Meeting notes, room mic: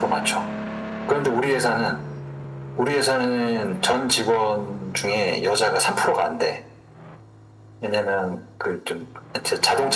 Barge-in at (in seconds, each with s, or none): none